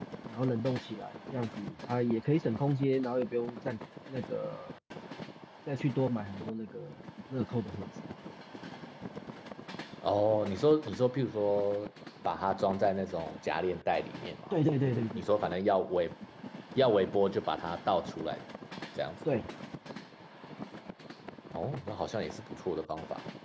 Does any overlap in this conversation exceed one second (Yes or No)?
No